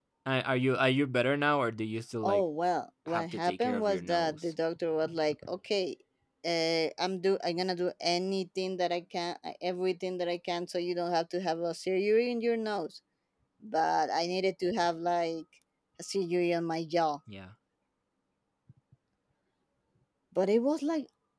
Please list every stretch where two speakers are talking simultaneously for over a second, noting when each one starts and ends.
3.1-4.5

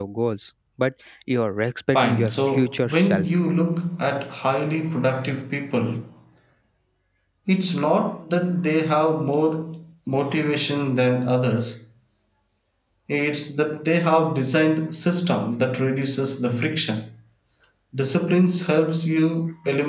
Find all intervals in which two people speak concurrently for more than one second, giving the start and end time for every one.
1.9-3.3

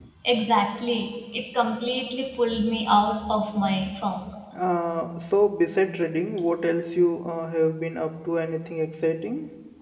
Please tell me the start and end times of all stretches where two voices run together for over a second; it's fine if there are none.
none

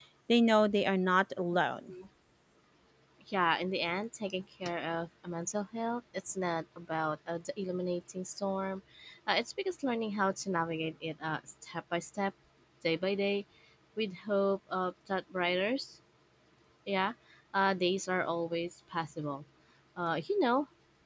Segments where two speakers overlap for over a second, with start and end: none

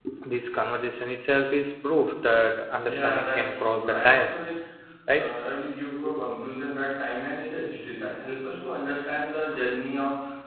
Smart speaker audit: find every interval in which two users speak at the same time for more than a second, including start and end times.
2.8-4.4

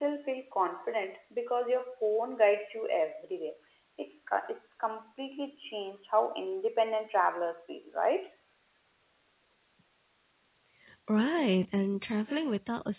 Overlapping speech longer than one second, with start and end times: none

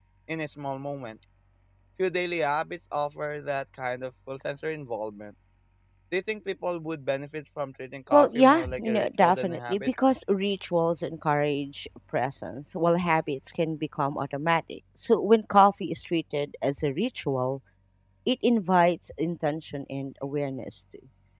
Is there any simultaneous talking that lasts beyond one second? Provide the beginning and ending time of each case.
8.1-9.9

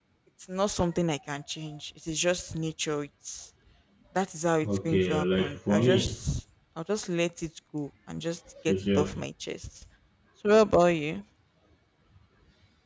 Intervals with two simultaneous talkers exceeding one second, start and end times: 4.7-6.2

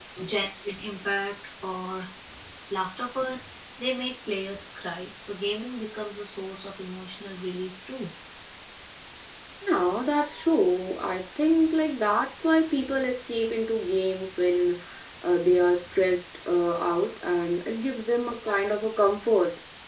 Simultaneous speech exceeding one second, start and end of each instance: none

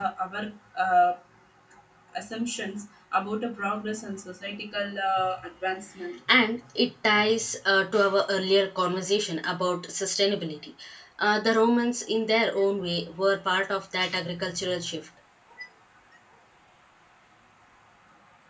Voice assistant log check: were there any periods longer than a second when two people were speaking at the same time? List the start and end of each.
none

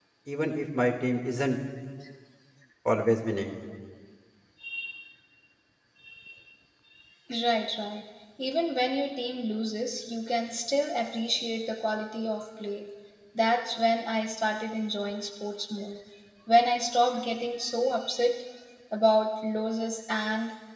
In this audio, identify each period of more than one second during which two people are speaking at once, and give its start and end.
none

